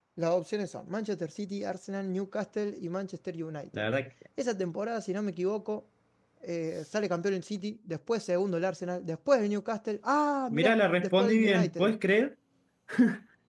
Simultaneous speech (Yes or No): Yes